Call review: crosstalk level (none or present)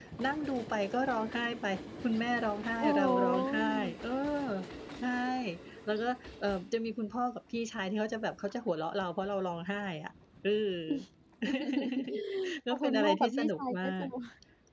present